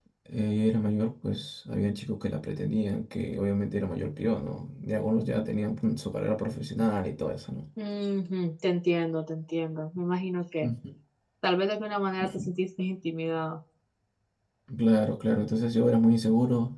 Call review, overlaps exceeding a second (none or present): none